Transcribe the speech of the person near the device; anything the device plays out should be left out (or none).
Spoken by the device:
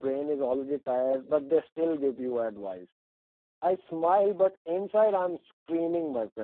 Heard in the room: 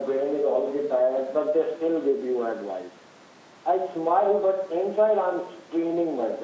none